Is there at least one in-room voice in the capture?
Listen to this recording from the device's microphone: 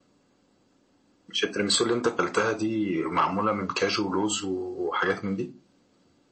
No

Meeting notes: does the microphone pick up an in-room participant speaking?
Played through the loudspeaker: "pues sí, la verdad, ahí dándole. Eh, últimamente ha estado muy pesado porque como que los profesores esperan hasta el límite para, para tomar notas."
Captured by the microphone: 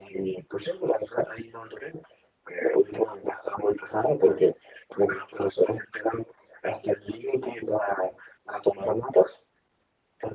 No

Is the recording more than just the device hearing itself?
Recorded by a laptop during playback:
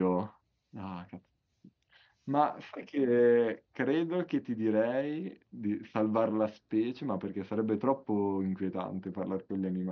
Yes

